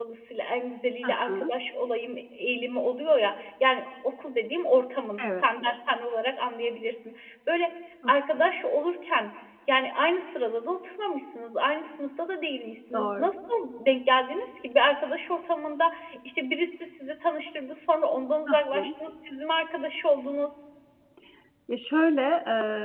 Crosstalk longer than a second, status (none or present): none